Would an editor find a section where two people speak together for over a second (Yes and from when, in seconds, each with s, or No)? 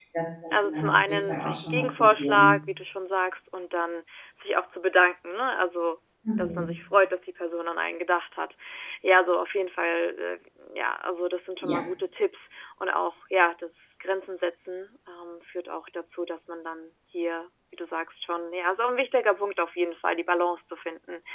Yes, from 0.5 s